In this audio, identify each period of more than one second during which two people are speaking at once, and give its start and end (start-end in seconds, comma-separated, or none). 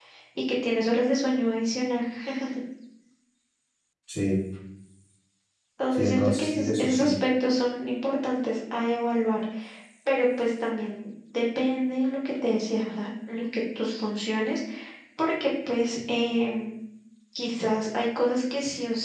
5.9-7.1